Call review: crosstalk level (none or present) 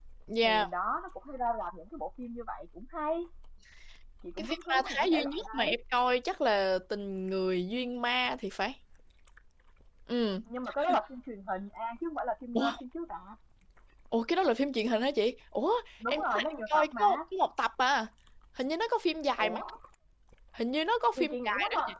present